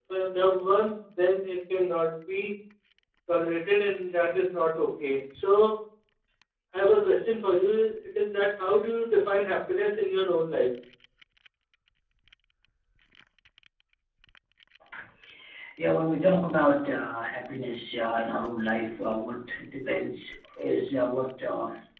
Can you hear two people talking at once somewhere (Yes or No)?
No